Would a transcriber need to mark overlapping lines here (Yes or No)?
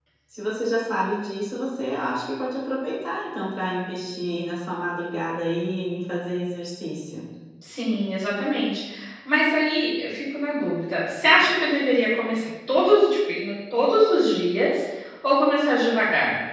No